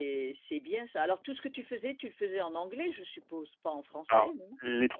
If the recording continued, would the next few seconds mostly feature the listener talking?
Yes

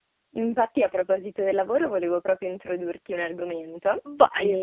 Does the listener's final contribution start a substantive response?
No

